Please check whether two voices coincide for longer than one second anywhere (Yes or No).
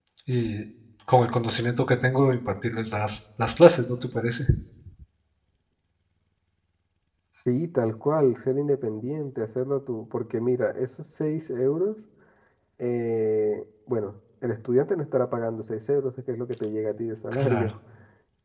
No